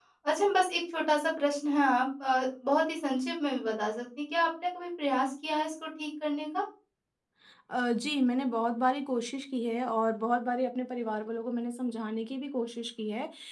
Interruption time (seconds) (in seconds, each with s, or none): none